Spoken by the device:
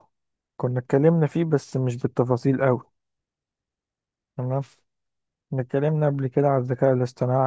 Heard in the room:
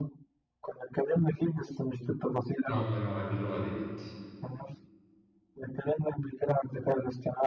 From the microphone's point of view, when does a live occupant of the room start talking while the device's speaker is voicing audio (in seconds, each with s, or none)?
2.7 s